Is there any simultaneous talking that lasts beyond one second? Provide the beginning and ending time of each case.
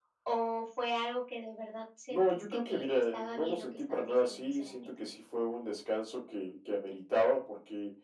2.1-4.9

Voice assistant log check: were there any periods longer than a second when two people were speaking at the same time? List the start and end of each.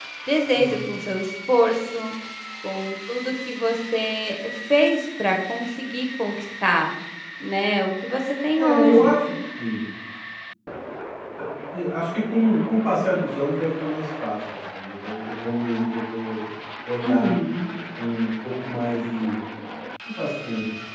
none

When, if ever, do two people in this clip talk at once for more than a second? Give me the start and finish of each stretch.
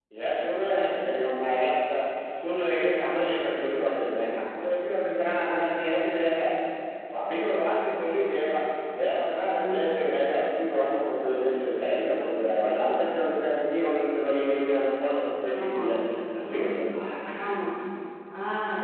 none

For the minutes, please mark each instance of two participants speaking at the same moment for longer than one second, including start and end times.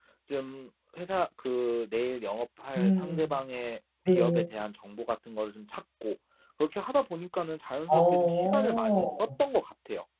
7.9-9.3

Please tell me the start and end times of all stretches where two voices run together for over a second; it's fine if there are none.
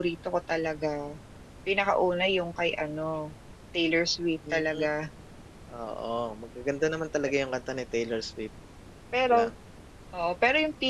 none

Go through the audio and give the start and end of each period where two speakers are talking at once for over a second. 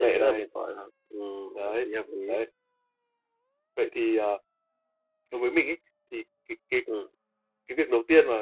none

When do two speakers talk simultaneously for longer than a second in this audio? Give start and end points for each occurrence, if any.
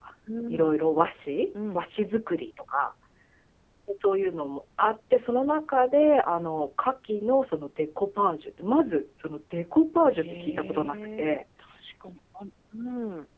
10.1-11.4

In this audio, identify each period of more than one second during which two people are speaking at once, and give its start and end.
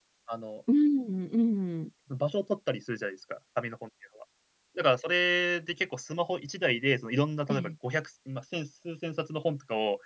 none

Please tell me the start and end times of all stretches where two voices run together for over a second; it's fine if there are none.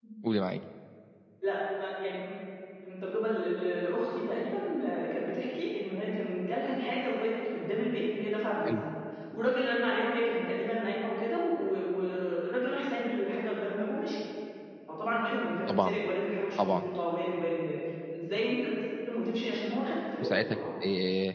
none

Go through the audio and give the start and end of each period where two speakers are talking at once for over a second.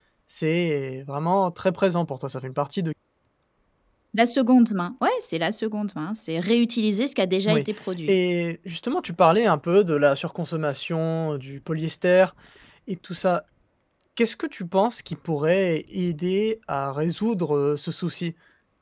none

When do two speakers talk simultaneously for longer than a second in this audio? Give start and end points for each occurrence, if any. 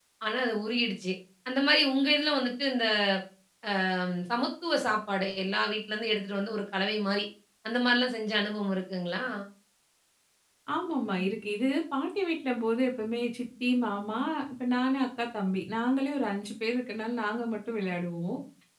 none

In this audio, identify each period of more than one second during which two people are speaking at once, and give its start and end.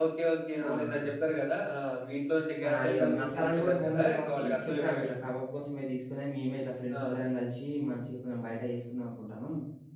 2.7-5.1

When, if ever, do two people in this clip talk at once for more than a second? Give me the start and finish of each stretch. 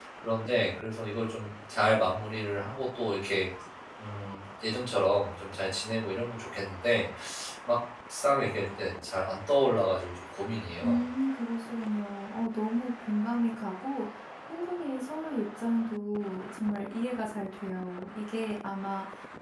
none

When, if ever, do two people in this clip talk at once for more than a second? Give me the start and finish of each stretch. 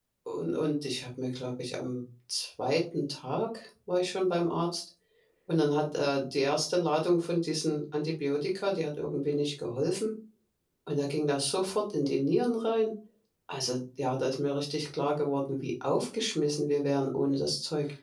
none

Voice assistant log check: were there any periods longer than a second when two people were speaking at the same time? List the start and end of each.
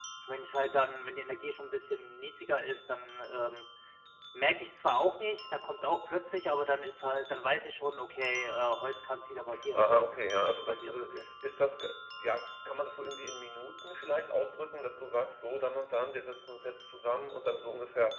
9.7-11.2

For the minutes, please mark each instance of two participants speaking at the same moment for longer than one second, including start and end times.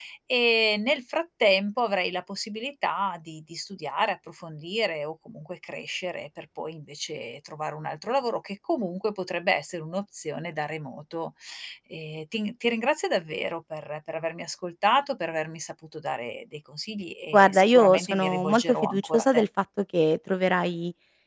17.3-19.4

